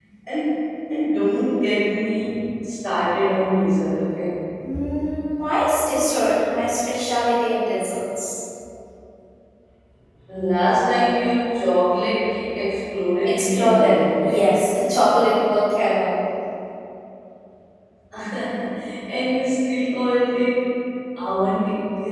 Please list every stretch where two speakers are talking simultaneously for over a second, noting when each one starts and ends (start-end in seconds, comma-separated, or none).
13.2-14.6